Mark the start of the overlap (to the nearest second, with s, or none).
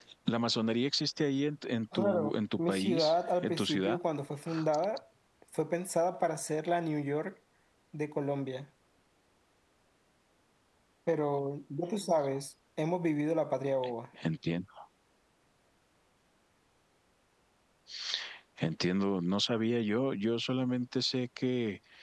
2 s